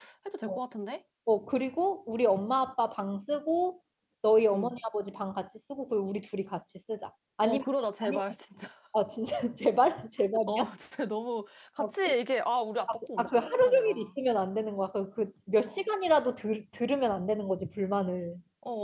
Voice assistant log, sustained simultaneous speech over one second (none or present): present